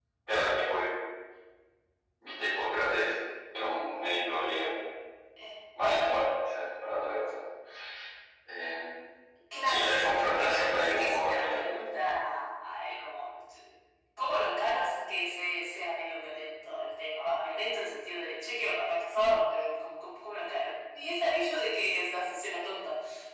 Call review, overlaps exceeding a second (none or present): present